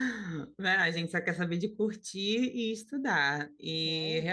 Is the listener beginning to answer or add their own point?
No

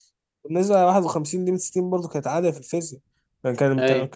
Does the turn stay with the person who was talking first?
Yes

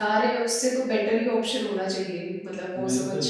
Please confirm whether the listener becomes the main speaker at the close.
Yes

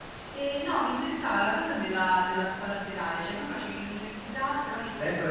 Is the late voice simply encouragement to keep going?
No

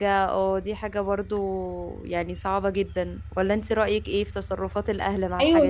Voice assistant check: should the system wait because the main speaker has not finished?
No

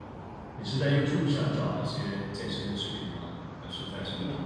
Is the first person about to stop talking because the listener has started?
Yes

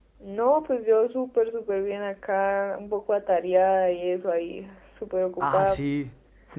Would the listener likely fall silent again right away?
No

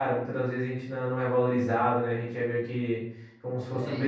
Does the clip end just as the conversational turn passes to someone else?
Yes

